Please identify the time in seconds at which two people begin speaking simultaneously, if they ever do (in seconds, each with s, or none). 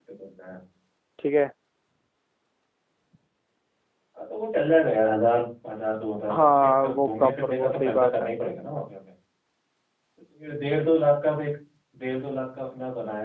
6.3 s